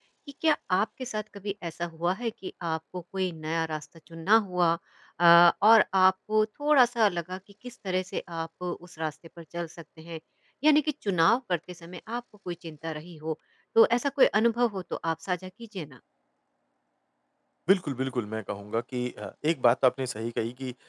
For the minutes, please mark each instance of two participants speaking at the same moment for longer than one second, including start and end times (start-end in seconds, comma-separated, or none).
none